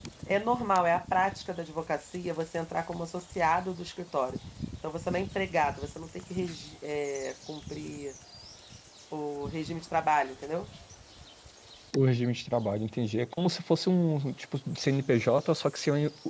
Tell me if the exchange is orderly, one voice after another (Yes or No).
Yes